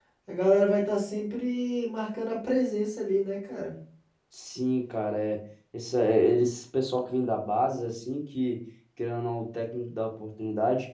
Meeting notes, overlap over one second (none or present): none